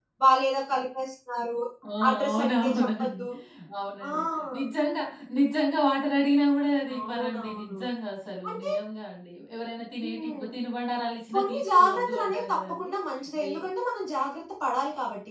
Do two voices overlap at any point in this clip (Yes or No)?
Yes